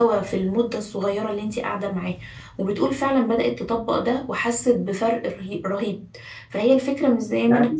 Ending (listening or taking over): listening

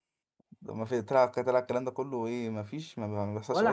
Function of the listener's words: taking over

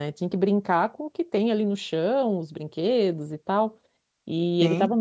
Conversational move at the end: listening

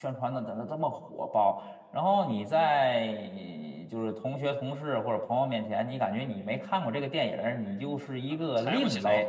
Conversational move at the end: taking over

